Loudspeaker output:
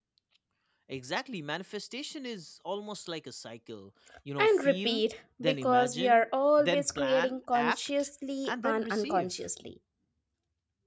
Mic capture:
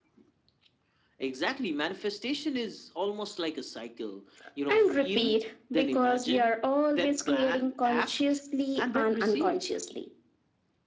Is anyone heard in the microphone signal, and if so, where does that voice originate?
echo only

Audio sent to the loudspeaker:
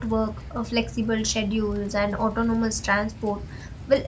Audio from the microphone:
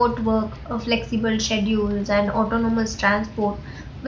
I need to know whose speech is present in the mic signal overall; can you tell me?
echo only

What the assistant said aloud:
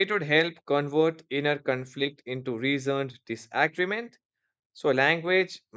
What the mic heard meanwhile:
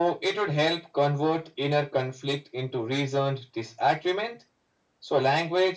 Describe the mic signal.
echo only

